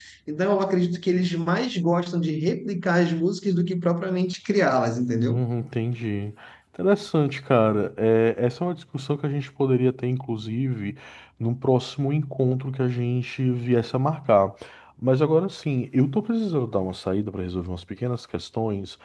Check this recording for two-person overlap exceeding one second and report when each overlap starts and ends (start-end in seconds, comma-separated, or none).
none